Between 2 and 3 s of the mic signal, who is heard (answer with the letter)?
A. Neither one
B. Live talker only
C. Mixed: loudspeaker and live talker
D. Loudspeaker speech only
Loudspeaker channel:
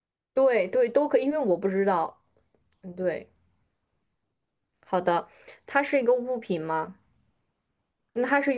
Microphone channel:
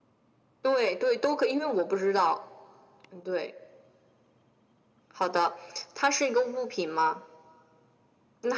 D